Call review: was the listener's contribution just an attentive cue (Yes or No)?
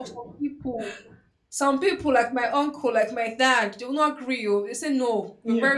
Yes